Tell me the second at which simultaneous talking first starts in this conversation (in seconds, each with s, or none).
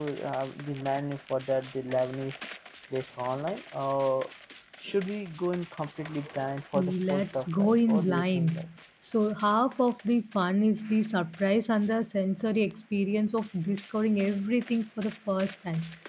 6.7 s